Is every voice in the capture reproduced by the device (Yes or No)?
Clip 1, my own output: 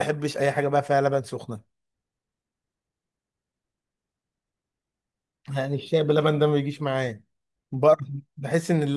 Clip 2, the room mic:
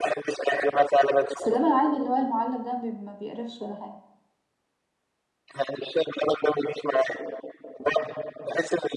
No